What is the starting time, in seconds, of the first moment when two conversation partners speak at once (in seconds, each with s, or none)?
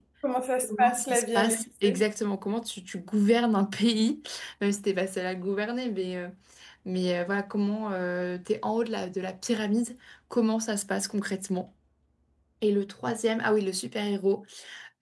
0.7 s